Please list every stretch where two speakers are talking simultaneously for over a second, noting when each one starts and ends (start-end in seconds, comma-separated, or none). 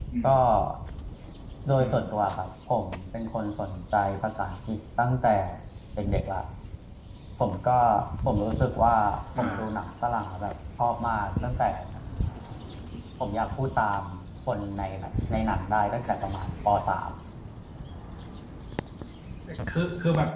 none